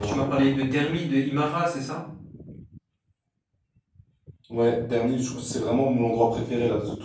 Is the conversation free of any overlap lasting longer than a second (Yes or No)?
Yes